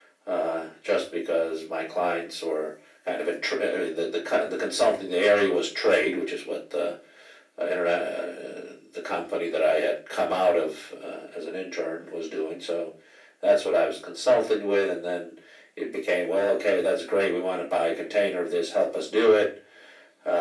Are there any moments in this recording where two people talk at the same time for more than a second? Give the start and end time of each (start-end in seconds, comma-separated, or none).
none